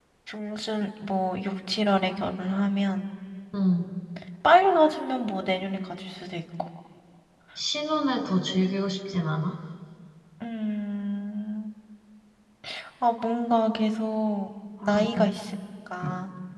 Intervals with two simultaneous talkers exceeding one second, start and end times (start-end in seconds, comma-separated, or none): none